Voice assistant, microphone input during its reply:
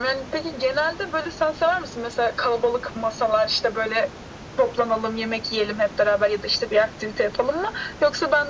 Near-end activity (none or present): none